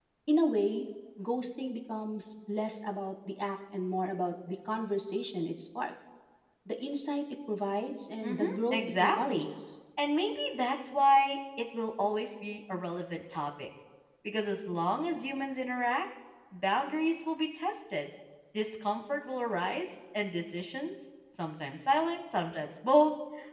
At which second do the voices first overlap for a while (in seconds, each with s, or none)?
8.2 s